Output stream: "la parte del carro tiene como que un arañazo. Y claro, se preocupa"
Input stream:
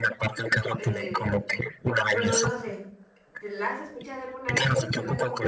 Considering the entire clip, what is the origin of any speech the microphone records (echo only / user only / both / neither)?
both